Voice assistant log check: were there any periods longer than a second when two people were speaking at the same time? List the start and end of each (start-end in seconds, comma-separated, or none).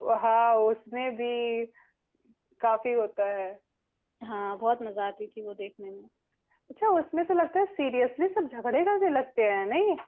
none